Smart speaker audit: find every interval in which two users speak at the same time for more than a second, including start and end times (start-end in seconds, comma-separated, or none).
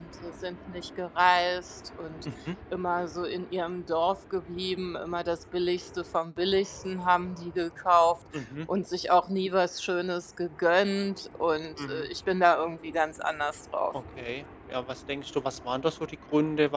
none